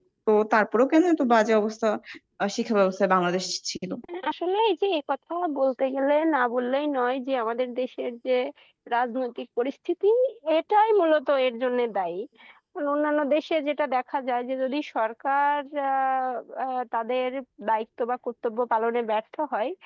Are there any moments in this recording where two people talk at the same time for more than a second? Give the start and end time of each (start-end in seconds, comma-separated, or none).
none